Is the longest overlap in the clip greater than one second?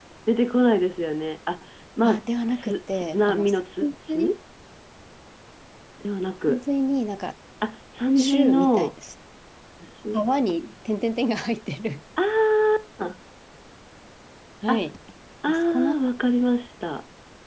Yes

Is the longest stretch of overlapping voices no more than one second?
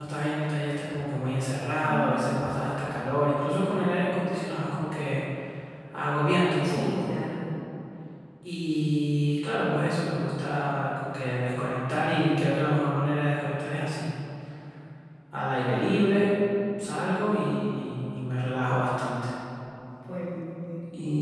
Yes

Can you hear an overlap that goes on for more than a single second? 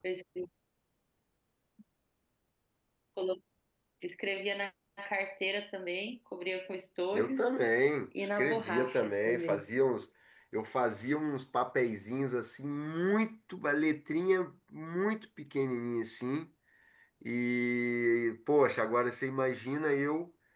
Yes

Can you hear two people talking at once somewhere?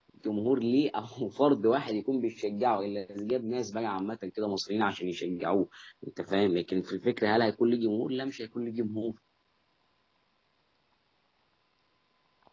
No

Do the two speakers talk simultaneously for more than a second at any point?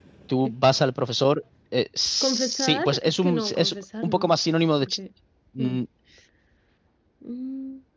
Yes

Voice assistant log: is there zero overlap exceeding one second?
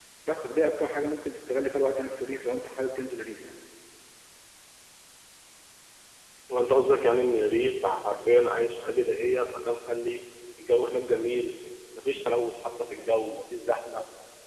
Yes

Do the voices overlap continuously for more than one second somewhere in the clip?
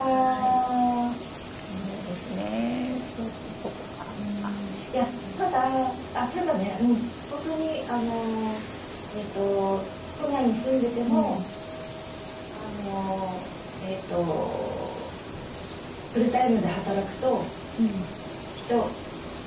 No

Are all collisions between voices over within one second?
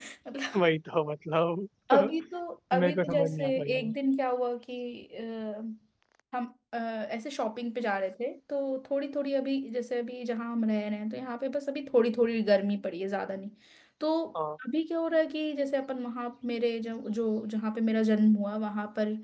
No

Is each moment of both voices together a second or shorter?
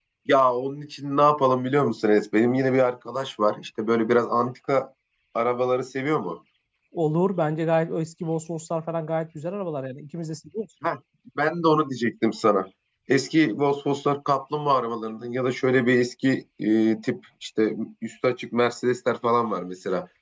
Yes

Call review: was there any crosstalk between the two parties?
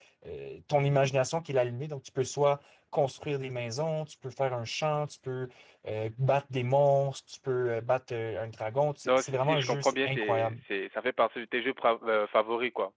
Yes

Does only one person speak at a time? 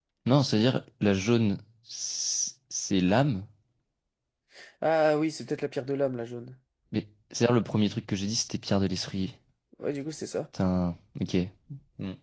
Yes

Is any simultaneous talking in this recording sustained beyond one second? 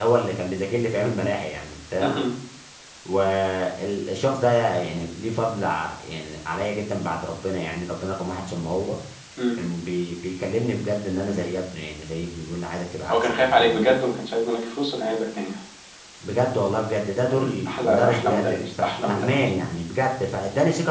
Yes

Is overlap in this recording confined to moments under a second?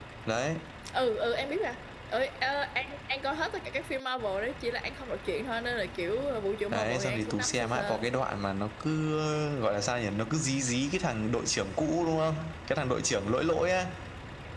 No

